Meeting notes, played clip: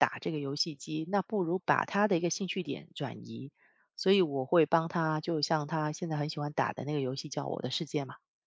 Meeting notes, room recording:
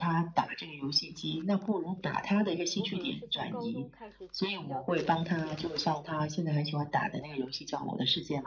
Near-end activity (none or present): present